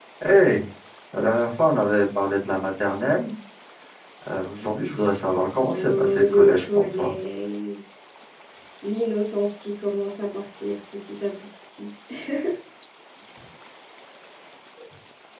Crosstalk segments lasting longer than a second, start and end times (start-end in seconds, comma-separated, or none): 5.7-7.1